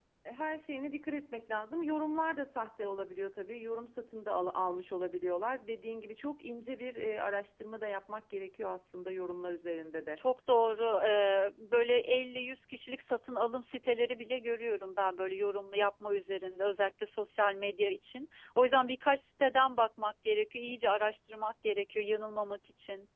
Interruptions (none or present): none